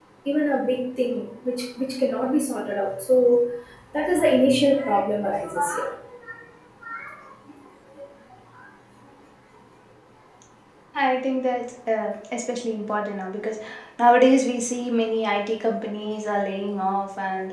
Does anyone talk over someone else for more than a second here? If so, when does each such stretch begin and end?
none

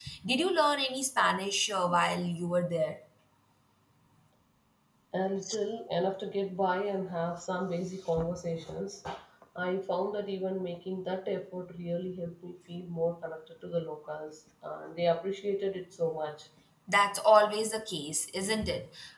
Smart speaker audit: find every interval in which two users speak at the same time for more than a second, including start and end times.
none

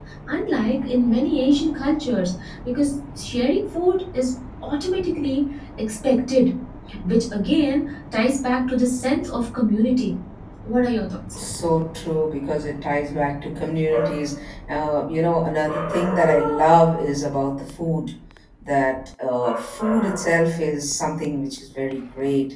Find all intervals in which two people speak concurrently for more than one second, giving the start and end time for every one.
none

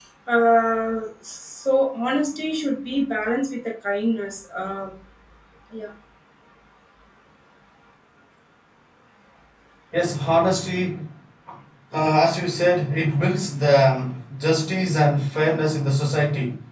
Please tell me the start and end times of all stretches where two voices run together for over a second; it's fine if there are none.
none

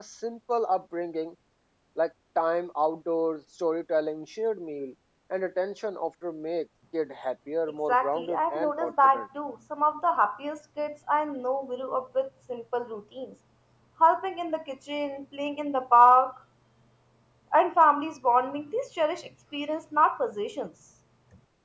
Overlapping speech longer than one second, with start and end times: 7.9-9.3

